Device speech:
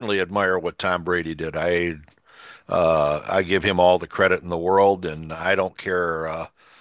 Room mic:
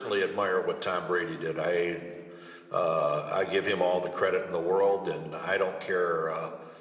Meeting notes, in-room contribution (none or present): none